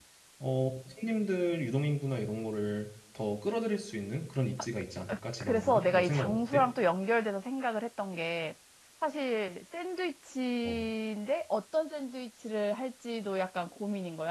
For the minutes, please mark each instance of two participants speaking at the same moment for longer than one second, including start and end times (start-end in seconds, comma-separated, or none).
5.4-6.6